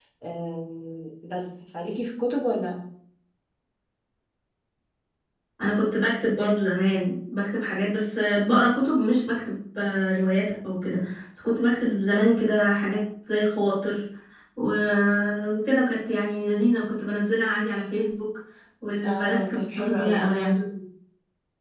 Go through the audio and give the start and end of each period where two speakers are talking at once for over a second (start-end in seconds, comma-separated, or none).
19.0-20.6